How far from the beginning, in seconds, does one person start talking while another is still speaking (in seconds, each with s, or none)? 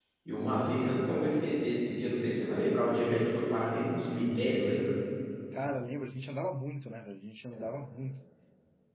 none